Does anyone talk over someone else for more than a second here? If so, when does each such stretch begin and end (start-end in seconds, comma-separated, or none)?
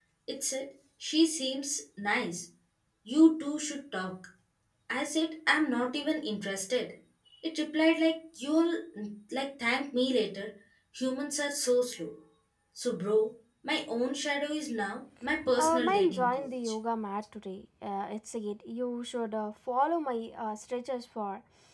15.5-16.7